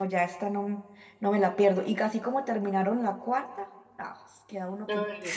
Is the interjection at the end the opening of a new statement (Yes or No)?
Yes